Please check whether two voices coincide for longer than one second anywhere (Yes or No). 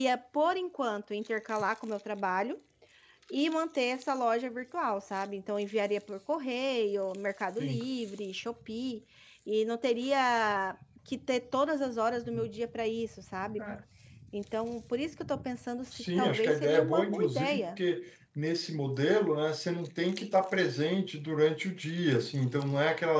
Yes